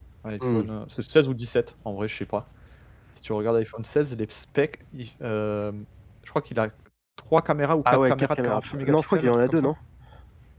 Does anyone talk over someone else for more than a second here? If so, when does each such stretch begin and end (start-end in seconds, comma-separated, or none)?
7.8-9.7